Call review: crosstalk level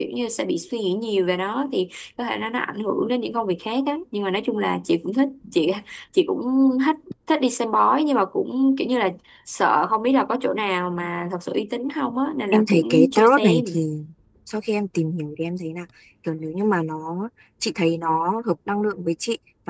present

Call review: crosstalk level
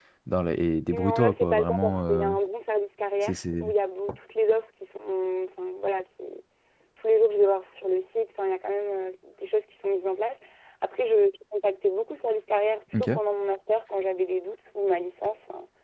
present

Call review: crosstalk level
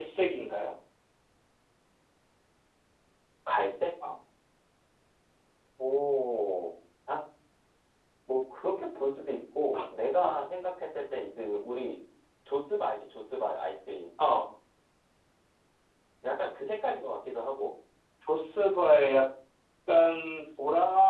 none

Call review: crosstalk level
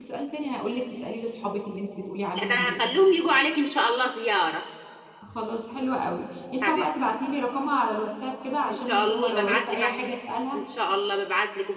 present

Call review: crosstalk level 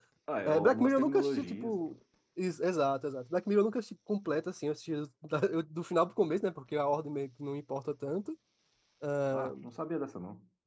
present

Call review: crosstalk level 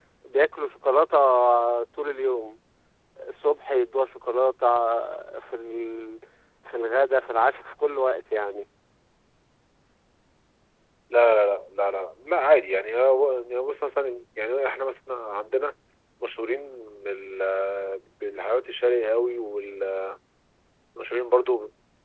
none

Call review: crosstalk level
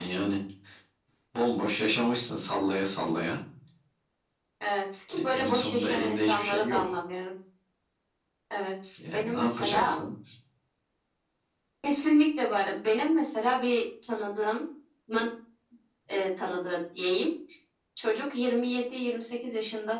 present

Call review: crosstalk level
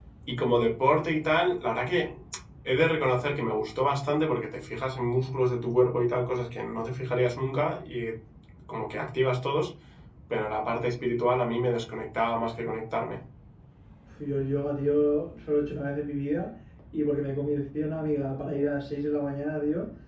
none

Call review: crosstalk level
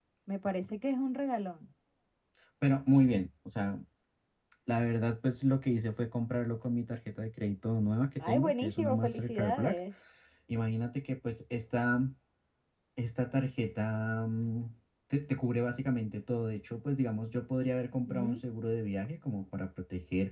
present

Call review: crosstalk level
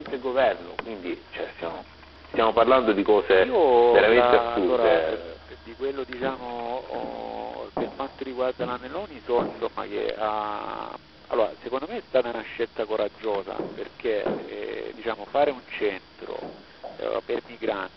present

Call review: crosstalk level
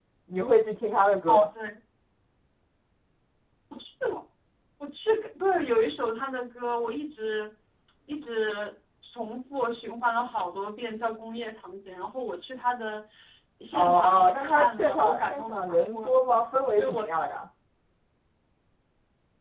present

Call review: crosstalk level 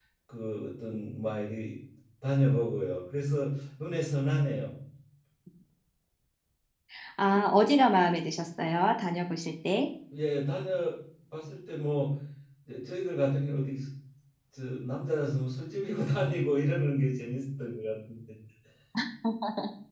none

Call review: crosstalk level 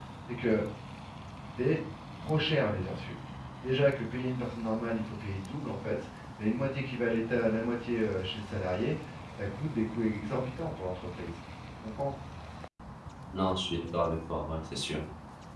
none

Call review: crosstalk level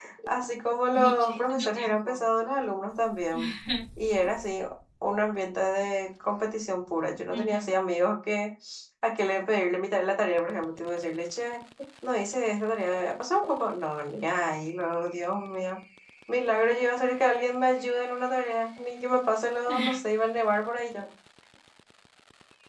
present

